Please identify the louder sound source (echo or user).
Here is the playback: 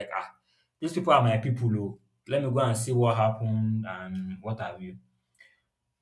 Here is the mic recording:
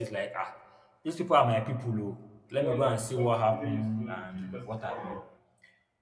echo